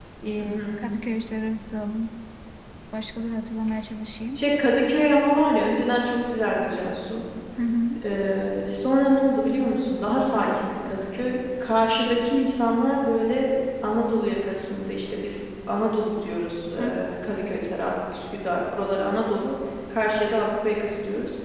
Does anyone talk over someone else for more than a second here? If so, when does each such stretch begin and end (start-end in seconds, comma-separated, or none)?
none